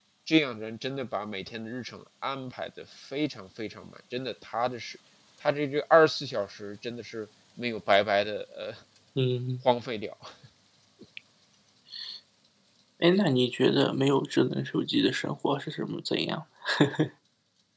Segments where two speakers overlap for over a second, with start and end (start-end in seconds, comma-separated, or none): none